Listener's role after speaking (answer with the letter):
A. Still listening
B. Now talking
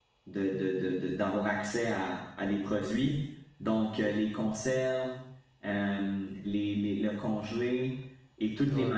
A